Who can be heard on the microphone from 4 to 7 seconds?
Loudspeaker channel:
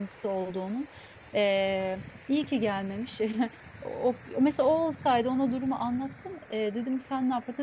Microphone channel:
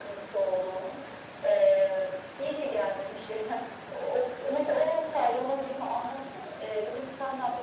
echo only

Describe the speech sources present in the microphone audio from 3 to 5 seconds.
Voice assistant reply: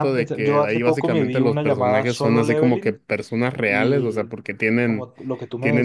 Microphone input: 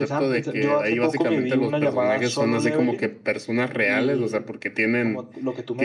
echo only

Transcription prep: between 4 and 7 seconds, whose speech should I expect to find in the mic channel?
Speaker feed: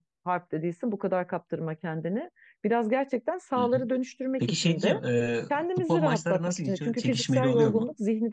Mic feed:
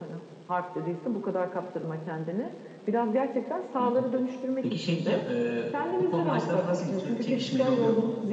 echo only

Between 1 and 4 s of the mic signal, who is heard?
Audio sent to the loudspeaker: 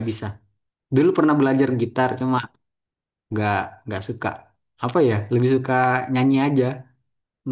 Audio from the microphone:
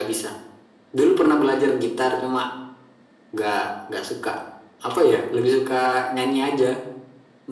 echo only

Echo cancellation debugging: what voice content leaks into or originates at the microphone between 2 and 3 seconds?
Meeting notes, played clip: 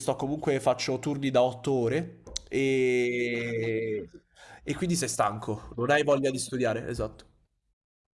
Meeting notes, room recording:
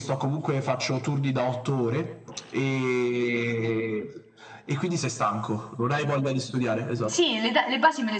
echo only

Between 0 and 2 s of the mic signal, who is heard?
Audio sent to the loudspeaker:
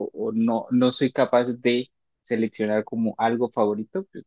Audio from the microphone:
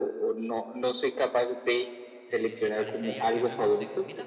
echo only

